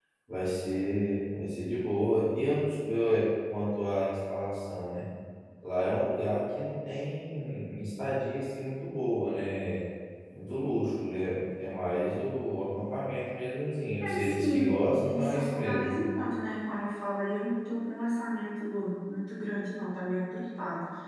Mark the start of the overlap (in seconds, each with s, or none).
14.0 s